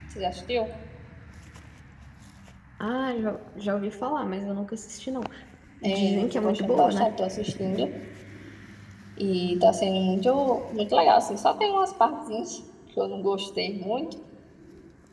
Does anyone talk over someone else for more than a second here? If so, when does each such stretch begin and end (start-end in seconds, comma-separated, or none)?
5.8-7.0